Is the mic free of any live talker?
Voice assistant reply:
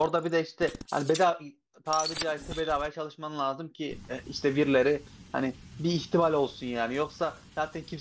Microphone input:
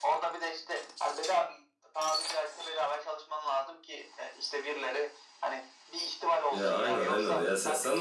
No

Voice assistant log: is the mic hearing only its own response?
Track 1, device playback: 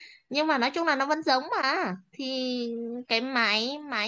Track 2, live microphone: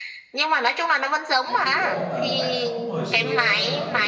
No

